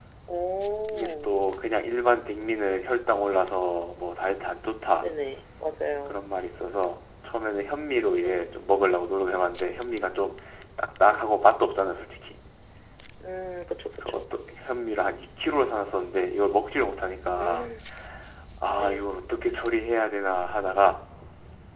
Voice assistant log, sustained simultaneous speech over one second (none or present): none